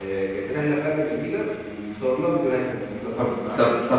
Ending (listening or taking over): taking over